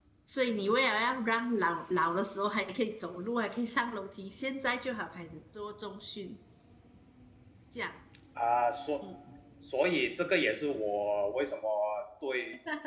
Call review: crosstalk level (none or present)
none